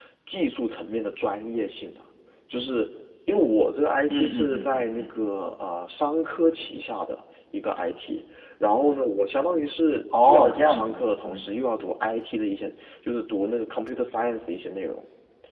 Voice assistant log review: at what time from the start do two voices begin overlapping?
4.1 s

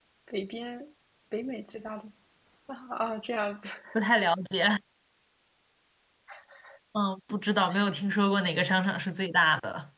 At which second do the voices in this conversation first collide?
none

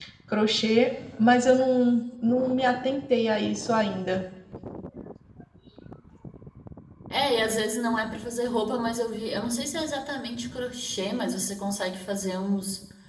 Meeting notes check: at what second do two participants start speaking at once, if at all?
none

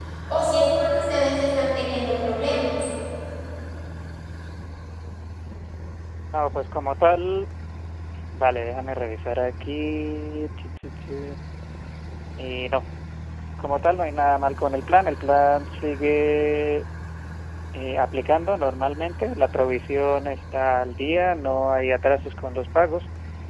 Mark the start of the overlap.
none

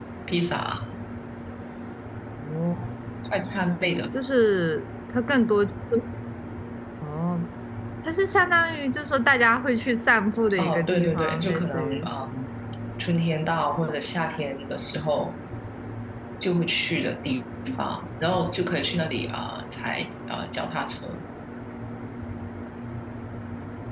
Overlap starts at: 10.5 s

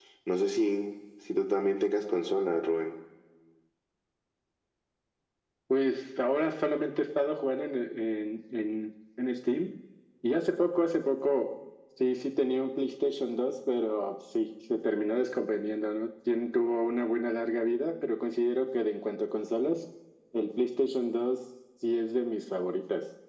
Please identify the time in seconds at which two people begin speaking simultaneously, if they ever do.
none

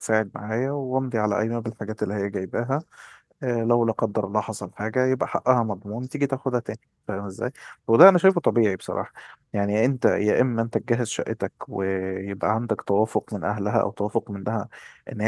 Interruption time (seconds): none

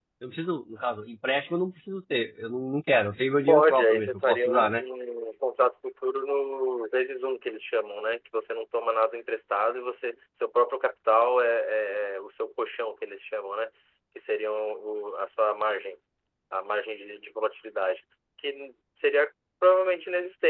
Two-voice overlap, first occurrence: 3.5 s

